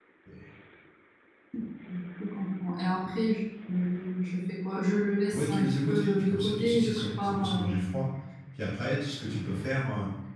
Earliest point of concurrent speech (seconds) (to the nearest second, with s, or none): 5 s